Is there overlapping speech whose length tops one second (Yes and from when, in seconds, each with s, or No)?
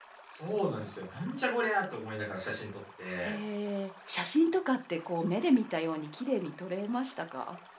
No